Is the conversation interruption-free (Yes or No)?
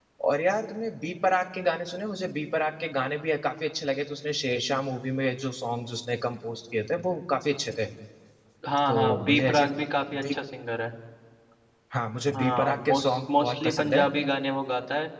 No